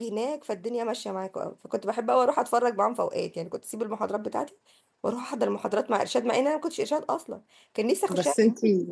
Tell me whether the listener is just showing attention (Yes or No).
No